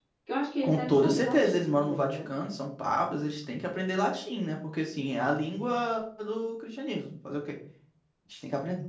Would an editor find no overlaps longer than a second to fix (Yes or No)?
No